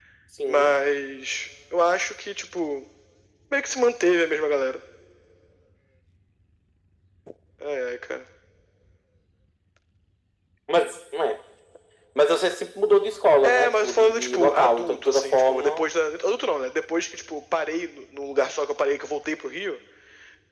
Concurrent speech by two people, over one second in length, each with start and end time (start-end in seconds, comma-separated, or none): 13.4-15.9